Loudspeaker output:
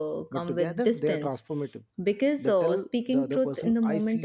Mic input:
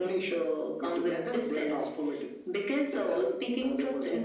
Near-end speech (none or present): none